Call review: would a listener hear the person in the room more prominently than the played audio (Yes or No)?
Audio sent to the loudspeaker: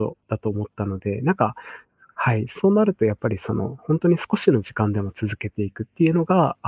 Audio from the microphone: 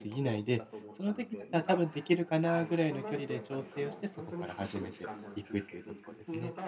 Yes